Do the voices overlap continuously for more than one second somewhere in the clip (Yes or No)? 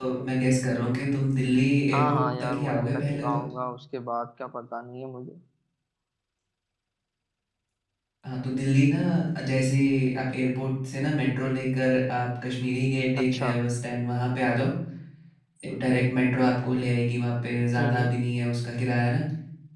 Yes